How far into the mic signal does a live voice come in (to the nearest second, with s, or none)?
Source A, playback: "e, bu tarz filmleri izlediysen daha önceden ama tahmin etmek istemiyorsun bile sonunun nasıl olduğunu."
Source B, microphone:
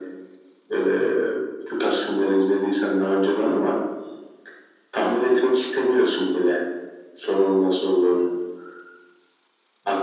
none